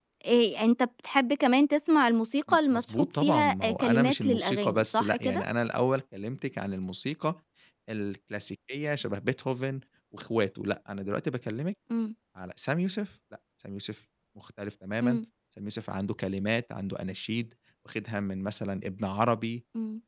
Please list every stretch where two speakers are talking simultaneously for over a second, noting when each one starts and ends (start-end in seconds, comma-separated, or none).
2.5-5.4